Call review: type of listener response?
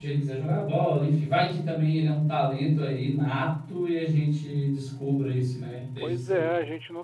taking over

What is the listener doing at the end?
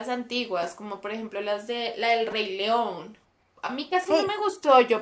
listening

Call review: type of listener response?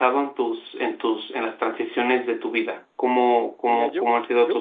taking over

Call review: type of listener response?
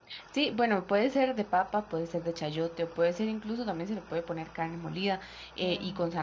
listening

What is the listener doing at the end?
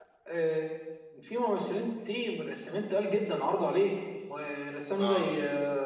listening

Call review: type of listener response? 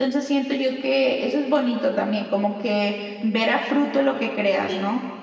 taking over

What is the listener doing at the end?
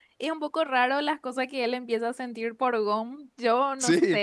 listening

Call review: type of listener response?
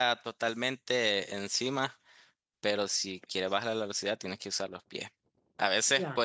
listening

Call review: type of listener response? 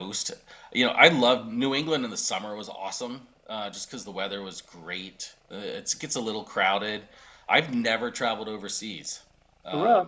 listening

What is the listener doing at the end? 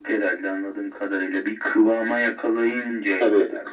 taking over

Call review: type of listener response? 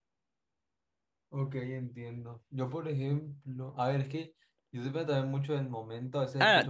taking over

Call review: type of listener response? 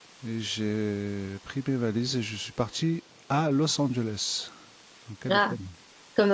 taking over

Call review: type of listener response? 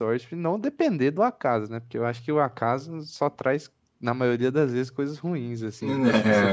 taking over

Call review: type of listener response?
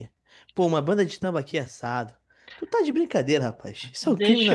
taking over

